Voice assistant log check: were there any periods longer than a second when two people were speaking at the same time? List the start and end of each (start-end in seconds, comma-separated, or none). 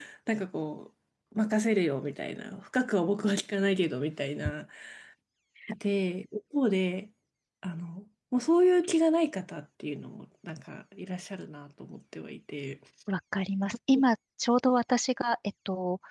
none